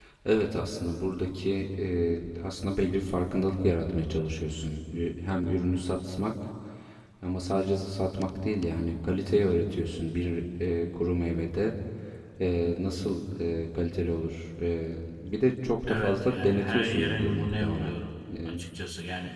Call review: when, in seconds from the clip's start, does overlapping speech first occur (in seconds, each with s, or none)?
15.9 s